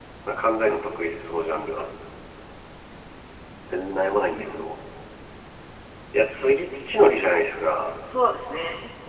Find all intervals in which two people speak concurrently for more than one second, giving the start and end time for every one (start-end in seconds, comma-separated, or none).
none